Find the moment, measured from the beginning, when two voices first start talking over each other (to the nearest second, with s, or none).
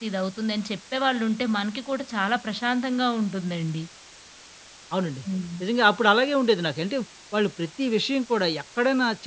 none